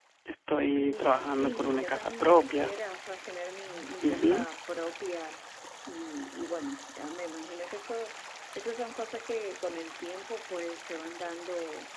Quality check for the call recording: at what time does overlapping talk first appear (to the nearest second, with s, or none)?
1 s